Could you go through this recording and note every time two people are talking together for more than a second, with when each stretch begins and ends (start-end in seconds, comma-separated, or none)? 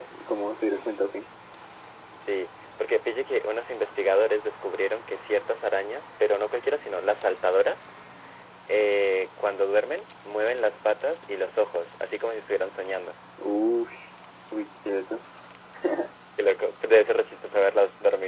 none